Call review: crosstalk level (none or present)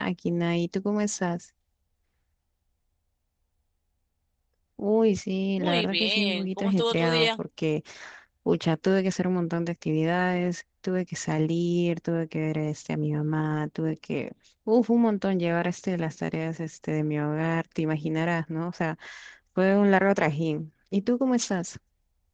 present